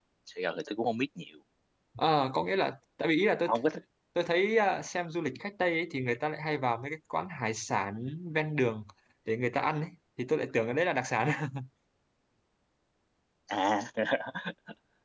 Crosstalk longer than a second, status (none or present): none